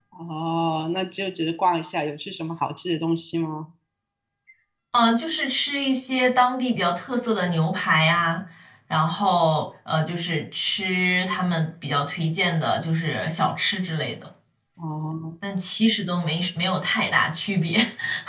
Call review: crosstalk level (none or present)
none